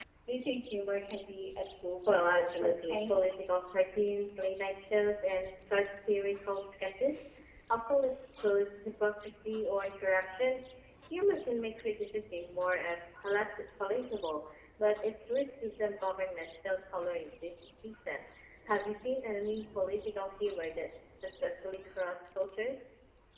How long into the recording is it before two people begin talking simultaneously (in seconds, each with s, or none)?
2.1 s